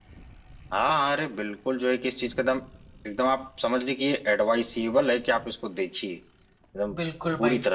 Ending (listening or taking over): taking over